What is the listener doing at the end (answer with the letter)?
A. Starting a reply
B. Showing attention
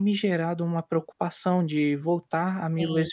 B